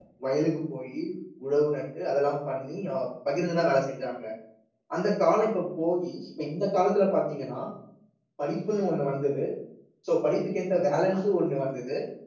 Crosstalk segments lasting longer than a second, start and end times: none

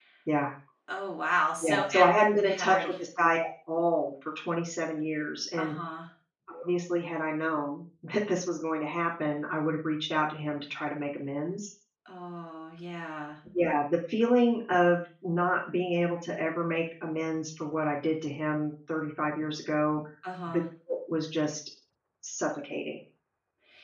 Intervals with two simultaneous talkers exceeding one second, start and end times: 1.6-2.9

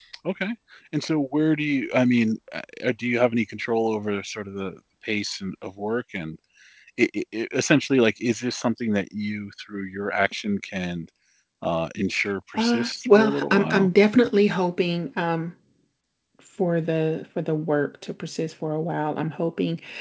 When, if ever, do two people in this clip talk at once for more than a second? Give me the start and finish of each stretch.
12.5-13.9

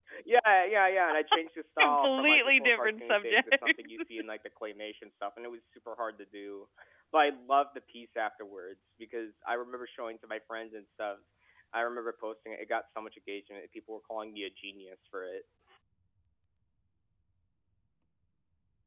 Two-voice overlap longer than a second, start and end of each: 1.8-4.0

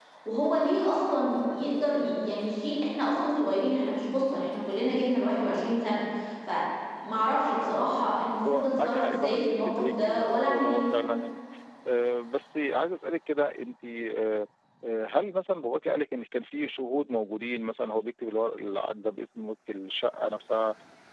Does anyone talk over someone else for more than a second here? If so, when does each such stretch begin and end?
8.5-10.8

